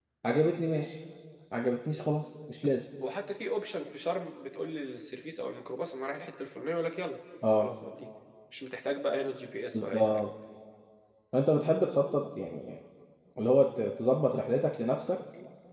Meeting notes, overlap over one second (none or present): none